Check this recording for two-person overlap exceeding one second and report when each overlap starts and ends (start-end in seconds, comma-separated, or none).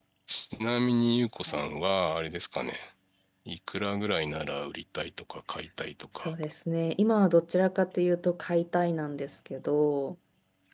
none